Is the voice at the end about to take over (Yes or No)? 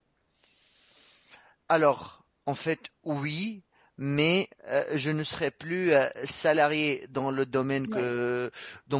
No